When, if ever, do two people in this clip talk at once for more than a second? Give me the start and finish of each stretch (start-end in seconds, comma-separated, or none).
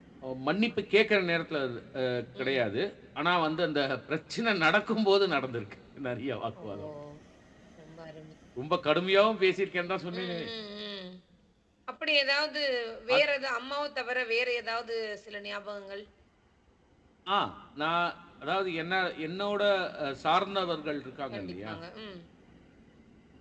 none